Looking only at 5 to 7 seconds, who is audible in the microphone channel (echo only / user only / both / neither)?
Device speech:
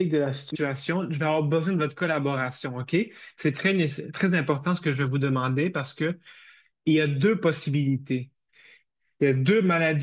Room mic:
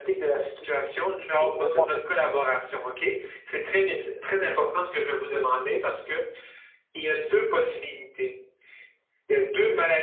echo only